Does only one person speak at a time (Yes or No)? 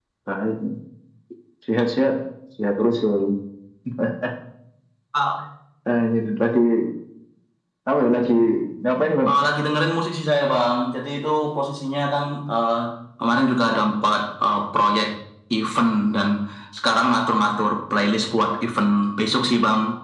Yes